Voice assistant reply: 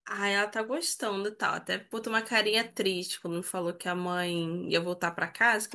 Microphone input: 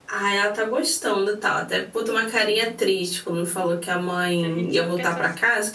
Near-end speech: present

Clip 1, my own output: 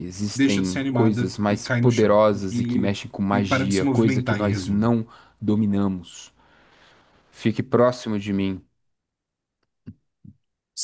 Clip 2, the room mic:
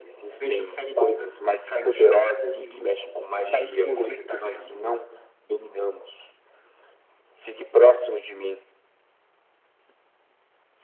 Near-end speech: none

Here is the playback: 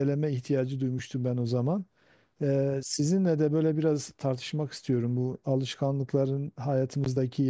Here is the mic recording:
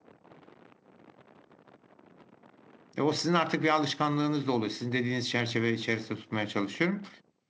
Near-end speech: present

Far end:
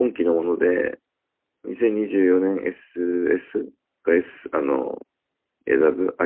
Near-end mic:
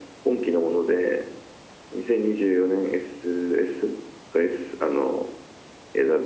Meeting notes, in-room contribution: none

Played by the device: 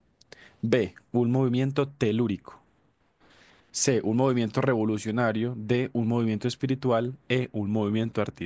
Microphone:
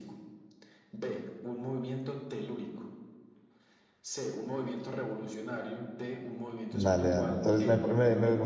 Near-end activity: present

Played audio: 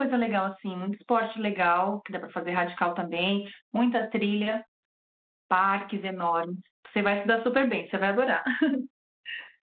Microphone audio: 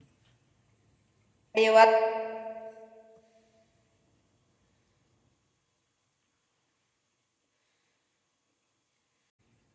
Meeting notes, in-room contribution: present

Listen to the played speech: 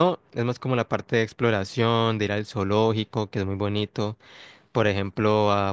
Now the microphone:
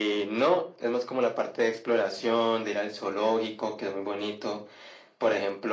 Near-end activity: none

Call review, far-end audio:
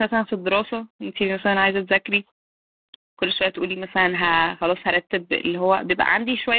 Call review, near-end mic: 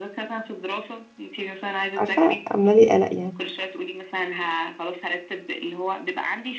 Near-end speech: present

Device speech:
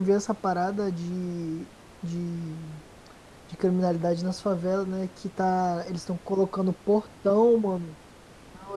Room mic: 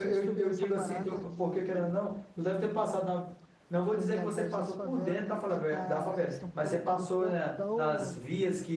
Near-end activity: present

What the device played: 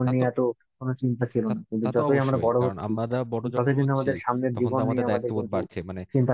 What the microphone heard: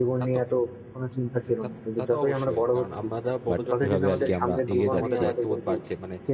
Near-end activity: present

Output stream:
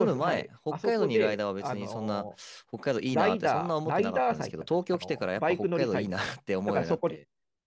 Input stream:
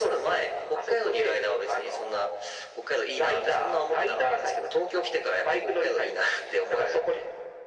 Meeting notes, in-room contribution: none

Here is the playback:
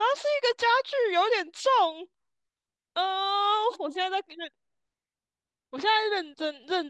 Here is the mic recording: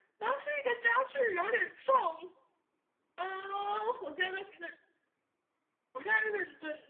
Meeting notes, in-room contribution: none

